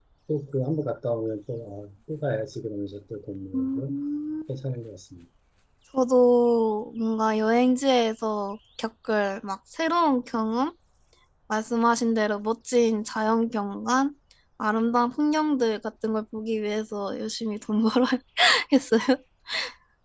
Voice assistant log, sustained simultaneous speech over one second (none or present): none